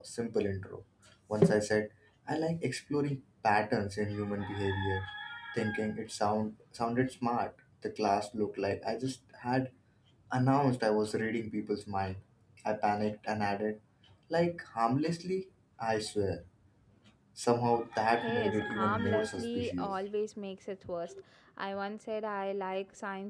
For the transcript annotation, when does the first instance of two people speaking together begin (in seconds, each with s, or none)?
18.2 s